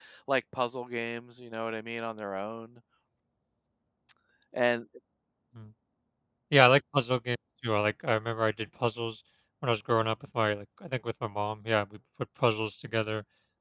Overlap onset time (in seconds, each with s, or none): none